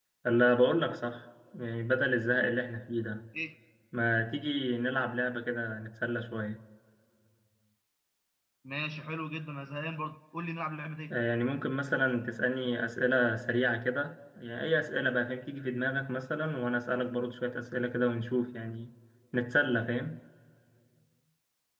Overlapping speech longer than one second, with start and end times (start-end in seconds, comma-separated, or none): none